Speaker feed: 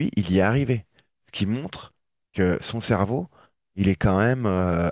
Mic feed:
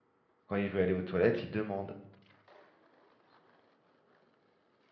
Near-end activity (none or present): present